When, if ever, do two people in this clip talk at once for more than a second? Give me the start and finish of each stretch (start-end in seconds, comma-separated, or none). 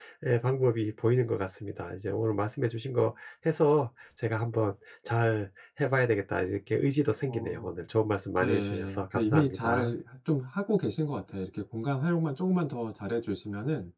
8.4-9.9